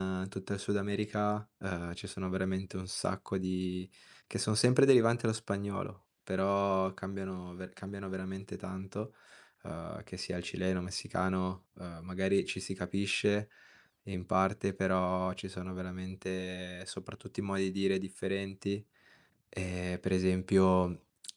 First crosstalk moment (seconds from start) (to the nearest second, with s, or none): none